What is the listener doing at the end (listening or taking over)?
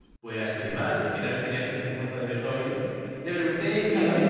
listening